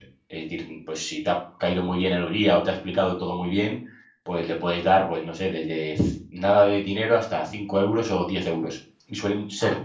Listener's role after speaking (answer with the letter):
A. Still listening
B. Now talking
A